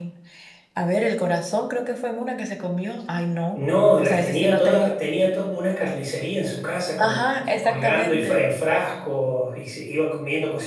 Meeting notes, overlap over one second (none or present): present